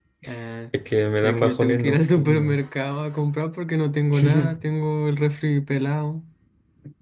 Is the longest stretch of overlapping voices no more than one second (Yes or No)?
No